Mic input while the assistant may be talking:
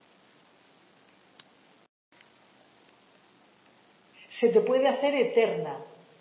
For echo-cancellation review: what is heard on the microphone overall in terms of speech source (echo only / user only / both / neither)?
user only